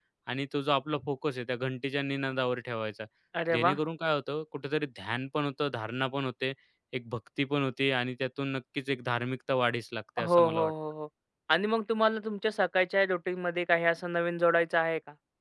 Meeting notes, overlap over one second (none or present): none